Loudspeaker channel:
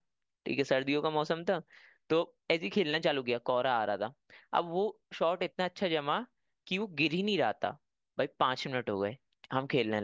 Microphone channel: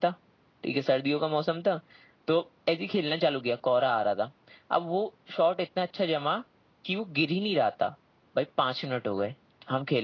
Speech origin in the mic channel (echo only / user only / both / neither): echo only